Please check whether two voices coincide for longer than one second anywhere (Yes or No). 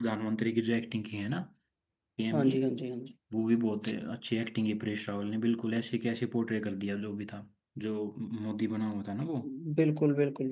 No